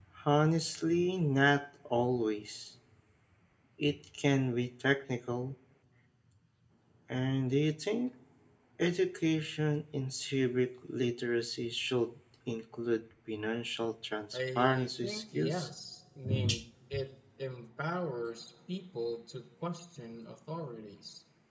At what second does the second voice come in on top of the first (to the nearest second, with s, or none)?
14 s